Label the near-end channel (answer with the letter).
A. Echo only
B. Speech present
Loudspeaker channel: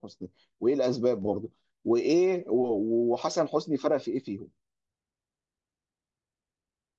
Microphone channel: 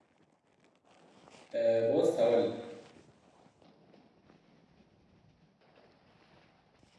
B